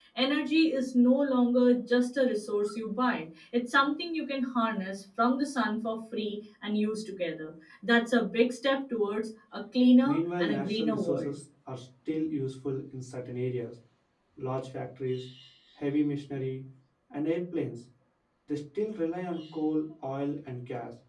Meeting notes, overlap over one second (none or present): present